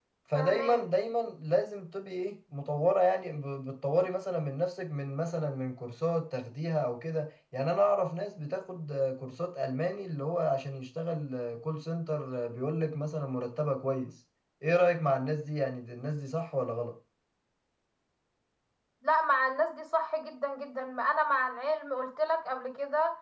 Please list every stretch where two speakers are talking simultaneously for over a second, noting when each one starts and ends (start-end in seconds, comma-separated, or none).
none